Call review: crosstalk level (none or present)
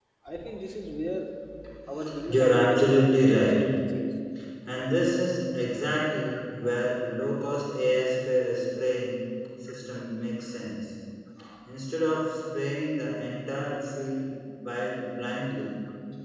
present